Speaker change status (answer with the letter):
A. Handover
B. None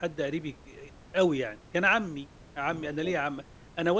B